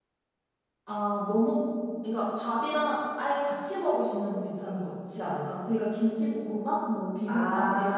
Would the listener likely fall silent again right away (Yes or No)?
No